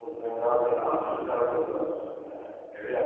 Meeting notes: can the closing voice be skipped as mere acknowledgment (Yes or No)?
No